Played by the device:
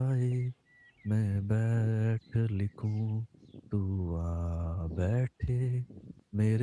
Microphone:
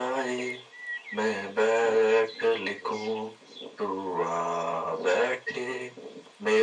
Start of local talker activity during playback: none

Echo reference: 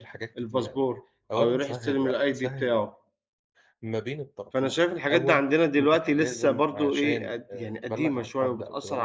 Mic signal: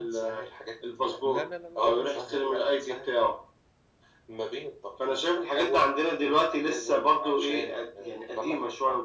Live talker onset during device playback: 1.2 s

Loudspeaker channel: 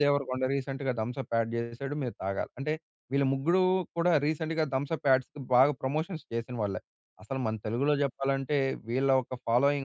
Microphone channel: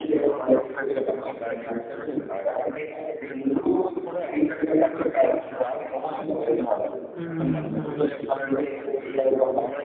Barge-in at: 7.2 s

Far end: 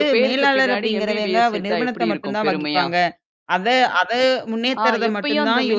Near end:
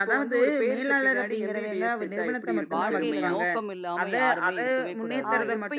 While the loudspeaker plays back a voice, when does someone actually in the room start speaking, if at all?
2.7 s

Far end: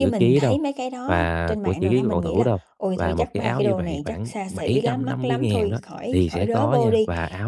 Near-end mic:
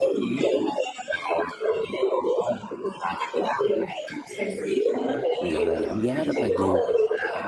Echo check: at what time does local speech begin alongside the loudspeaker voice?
5.4 s

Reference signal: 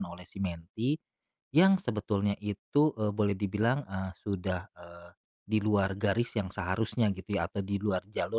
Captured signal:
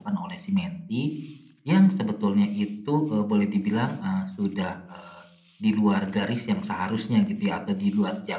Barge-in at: none

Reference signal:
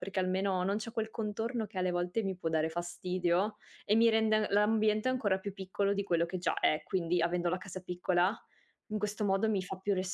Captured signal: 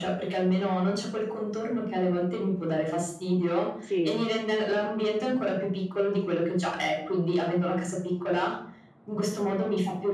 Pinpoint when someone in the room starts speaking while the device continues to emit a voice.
3.8 s

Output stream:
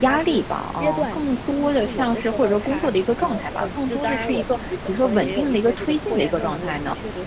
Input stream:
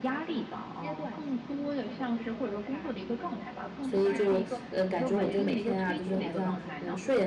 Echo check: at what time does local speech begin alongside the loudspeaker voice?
3.8 s

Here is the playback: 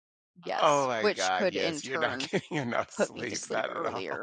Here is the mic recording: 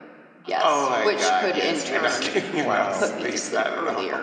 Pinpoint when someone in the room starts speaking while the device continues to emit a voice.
1.9 s

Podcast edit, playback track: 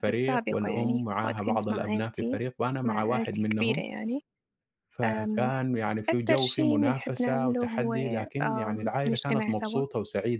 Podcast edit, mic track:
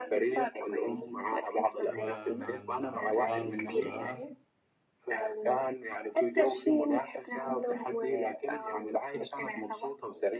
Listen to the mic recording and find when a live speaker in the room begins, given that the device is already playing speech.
1.9 s

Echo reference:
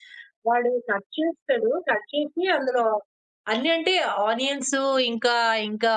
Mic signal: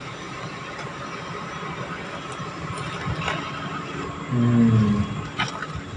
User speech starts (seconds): 4.3 s

